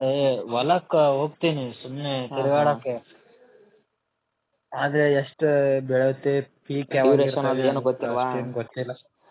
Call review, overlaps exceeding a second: present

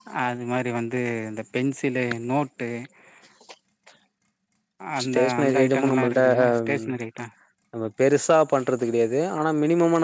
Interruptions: present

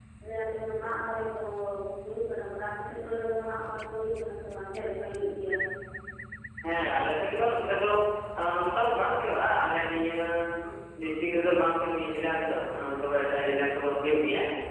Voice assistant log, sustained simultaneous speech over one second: none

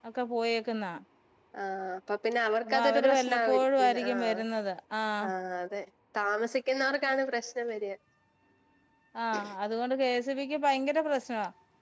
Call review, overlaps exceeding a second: present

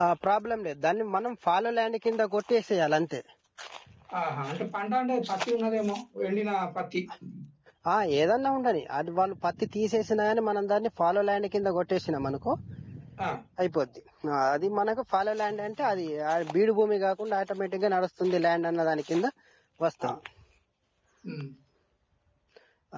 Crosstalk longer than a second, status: none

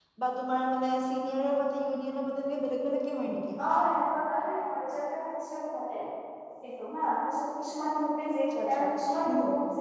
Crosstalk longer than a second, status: none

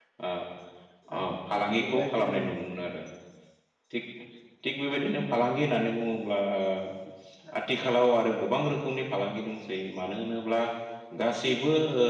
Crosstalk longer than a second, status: present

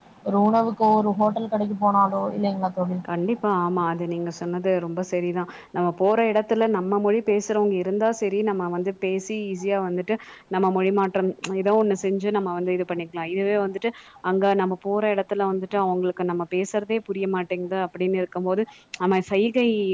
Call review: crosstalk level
none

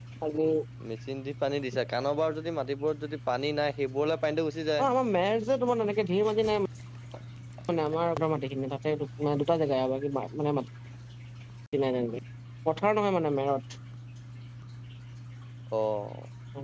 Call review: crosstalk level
none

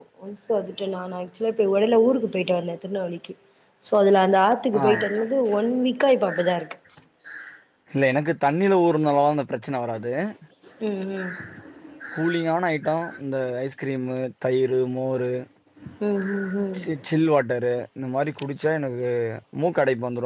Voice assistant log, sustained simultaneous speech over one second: none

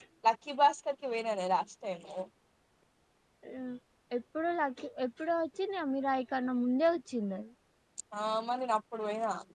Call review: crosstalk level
none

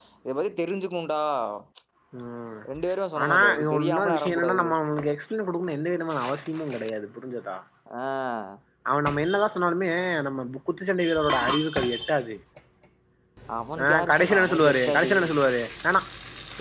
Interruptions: present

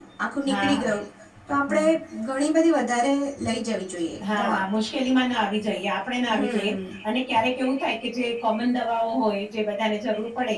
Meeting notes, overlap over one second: none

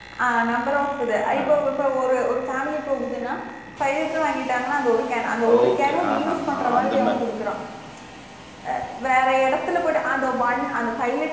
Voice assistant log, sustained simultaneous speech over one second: present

